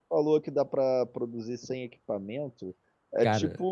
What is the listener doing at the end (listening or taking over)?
listening